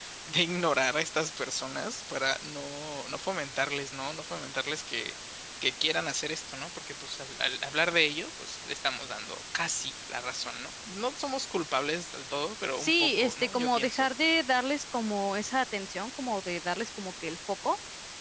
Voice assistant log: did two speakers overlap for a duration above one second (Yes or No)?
Yes